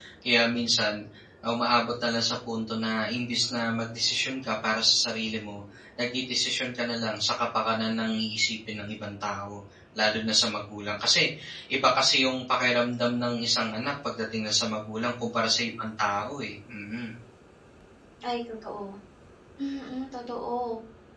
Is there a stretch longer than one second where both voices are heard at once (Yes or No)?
No